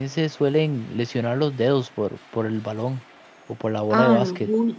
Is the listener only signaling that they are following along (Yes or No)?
No